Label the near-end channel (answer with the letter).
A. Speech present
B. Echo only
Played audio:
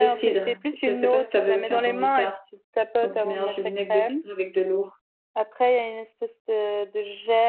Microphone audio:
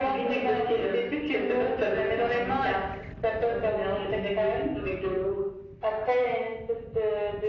B